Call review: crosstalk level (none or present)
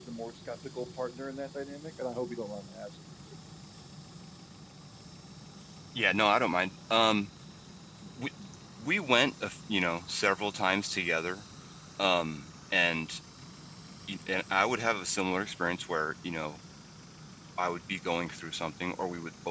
none